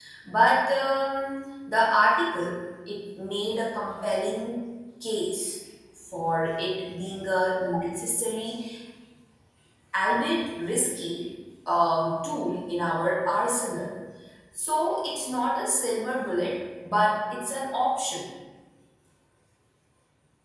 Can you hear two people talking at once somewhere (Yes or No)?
No